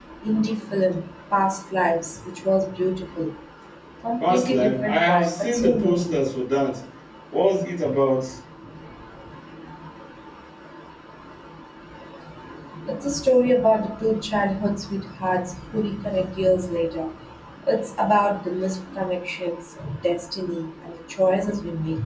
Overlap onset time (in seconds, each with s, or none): 4.2 s